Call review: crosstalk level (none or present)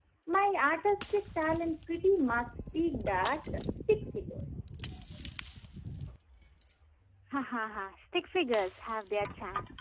none